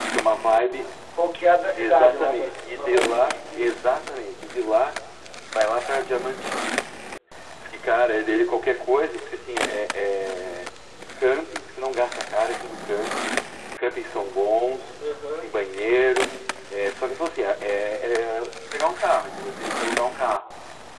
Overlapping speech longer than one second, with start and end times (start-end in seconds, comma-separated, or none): 1.8-3.8